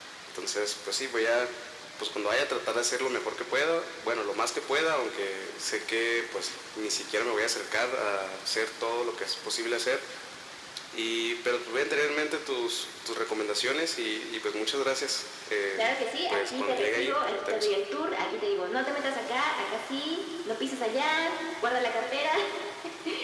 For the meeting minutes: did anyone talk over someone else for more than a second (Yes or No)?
Yes